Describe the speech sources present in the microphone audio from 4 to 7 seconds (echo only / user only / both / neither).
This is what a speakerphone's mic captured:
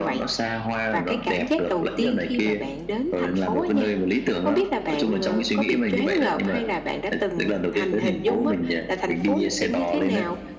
both